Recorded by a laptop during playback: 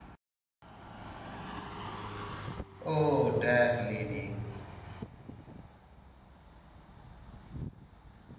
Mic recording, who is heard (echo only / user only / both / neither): user only